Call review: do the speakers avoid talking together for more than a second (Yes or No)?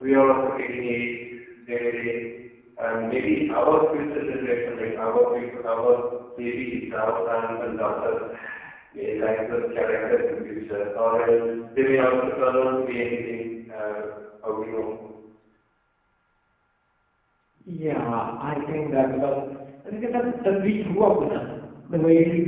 Yes